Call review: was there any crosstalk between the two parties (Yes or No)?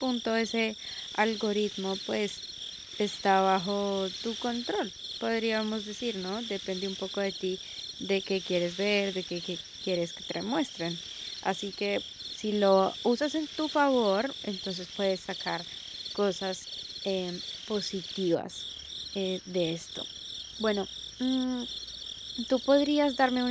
No